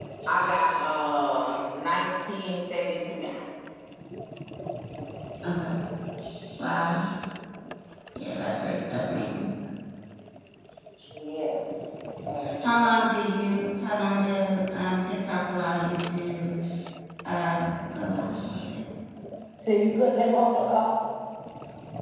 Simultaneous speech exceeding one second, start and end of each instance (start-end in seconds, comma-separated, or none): none